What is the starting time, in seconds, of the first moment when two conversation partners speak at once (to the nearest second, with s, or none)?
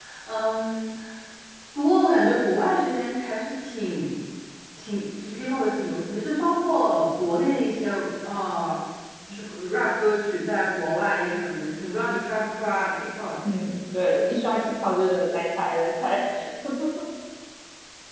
none